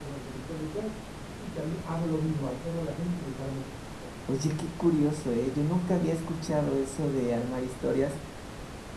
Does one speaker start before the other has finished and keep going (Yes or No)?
No